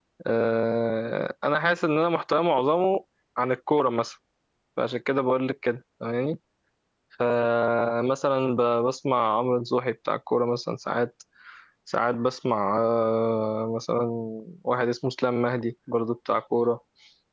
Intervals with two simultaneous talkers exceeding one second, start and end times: none

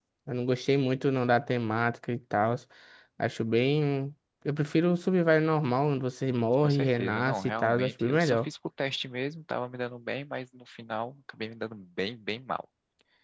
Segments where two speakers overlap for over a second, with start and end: 6.6-8.5

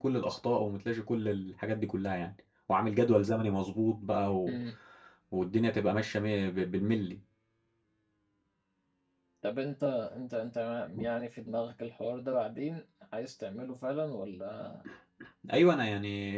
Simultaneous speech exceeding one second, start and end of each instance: none

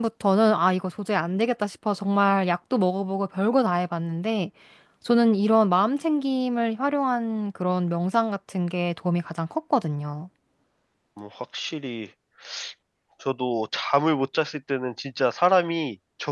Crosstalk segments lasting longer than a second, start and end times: none

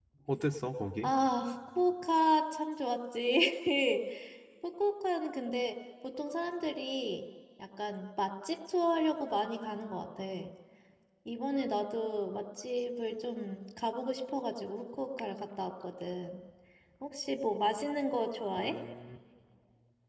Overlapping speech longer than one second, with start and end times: none

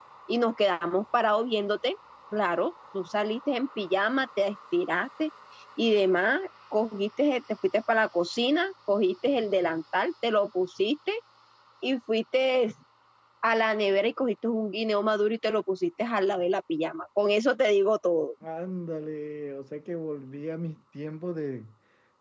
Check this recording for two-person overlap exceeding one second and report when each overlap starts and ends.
none

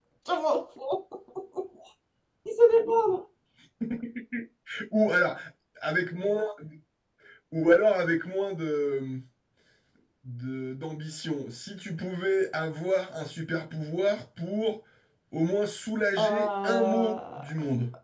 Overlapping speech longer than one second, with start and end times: 16.2-17.4

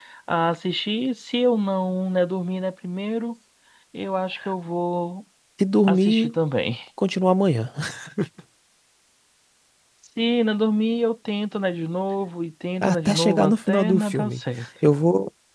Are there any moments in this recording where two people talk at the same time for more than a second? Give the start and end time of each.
12.8-14.4

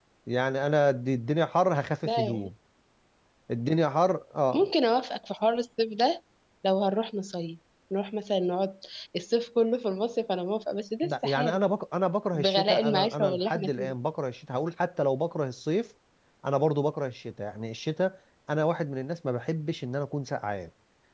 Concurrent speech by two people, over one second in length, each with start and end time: 12.3-13.9

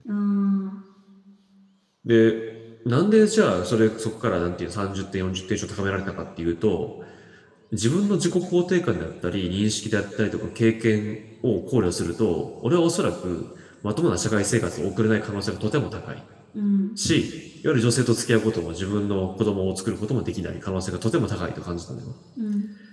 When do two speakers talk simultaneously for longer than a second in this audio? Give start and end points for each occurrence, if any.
none

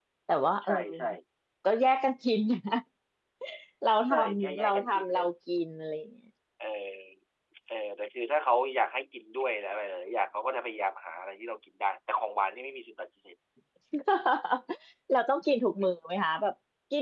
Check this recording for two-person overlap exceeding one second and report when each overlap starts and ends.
4.0-5.2

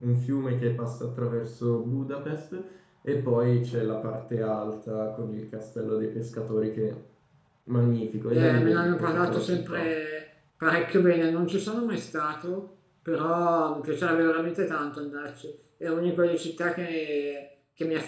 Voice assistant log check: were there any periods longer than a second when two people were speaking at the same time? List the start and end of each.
8.3-9.9

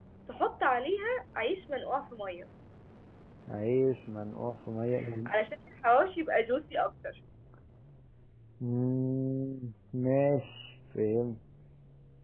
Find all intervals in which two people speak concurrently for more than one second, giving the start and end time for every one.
none

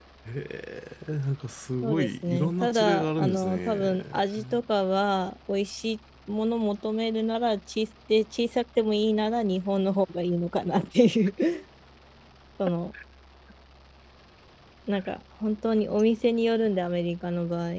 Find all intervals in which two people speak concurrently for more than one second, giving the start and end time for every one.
1.8-3.9

